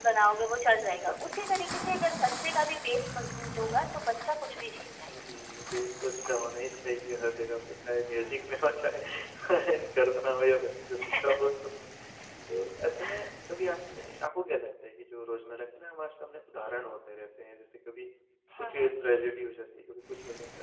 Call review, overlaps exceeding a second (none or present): none